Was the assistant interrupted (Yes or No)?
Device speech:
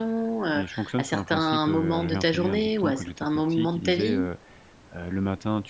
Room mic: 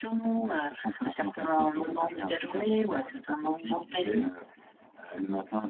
No